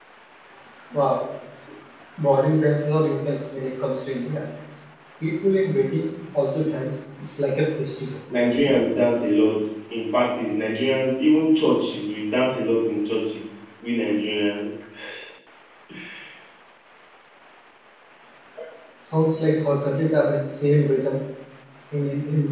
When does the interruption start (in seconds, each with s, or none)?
none